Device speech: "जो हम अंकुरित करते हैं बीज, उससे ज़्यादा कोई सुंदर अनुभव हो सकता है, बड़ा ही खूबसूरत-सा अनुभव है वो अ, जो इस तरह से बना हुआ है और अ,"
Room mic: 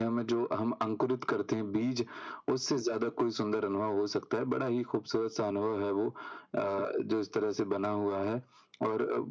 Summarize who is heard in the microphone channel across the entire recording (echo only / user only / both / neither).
echo only